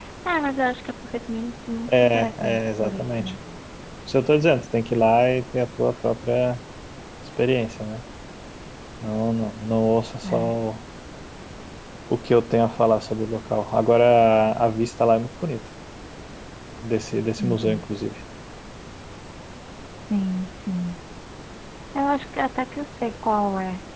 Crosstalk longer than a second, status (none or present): present